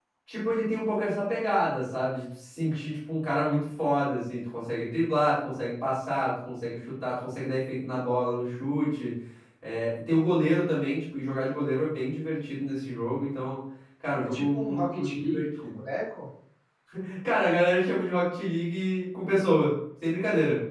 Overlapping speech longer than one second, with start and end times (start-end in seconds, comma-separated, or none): 14.2-15.8